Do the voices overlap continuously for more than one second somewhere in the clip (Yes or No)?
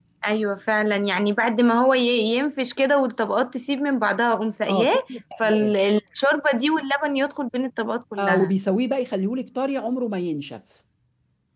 No